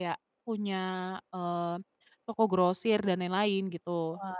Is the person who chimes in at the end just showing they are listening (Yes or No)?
No